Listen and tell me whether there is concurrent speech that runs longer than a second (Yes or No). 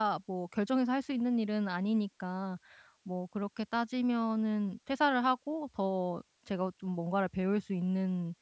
No